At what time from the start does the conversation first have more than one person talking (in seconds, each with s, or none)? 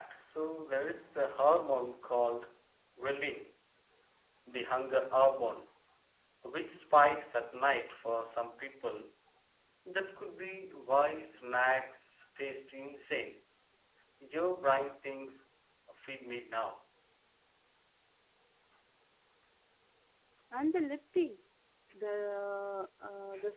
none